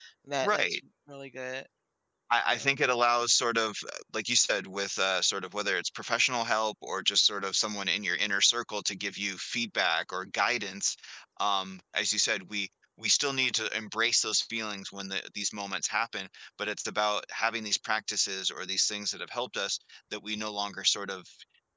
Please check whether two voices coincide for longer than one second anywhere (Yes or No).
No